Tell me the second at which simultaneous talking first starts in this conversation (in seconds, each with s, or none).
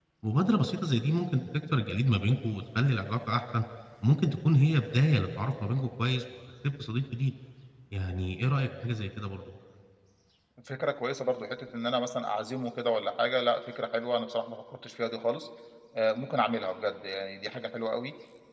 none